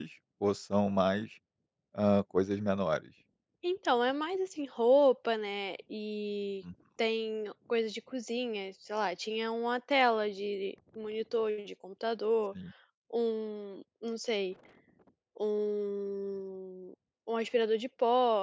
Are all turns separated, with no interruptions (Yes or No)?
Yes